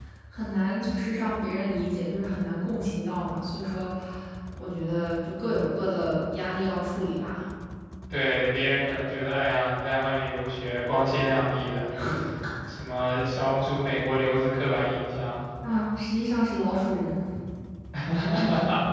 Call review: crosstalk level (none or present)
none